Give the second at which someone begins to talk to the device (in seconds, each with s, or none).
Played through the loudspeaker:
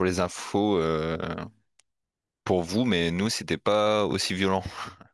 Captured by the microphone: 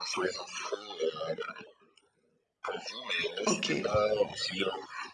3.5 s